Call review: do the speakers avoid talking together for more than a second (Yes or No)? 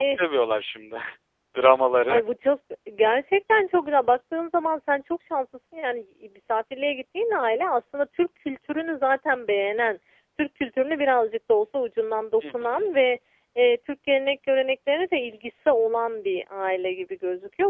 Yes